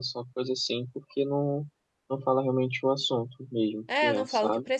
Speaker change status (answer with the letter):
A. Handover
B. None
A